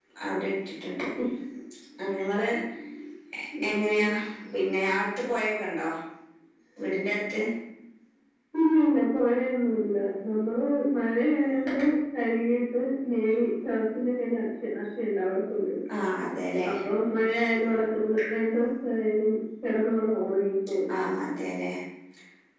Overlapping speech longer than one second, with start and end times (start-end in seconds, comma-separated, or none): none